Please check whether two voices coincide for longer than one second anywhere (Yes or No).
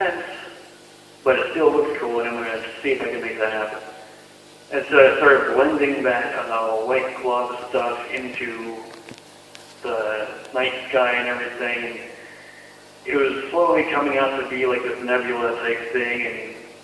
No